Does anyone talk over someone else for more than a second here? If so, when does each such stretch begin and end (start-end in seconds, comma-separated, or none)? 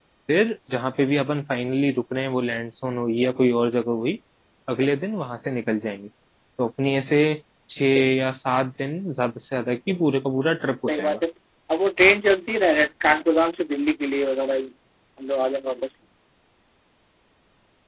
none